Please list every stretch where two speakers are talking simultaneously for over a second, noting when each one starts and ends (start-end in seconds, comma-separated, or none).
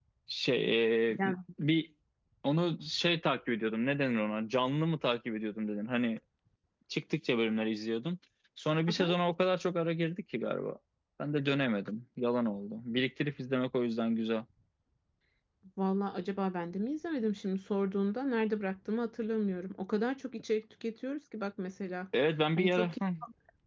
none